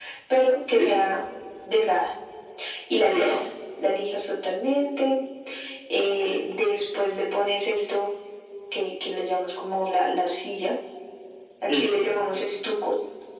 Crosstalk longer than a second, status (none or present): none